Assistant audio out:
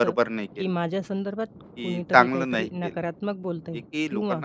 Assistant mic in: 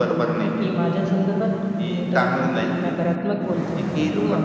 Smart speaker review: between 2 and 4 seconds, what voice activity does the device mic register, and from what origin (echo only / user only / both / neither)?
echo only